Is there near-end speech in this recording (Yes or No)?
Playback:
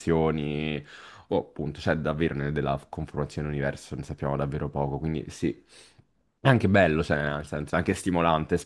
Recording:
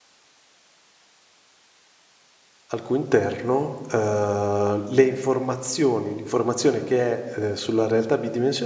Yes